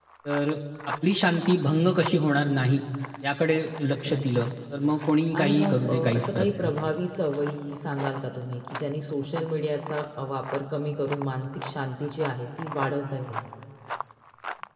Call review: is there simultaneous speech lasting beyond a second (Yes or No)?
Yes